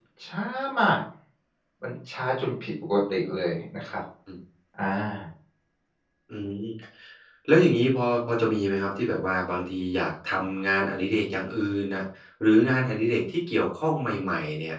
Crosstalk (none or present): none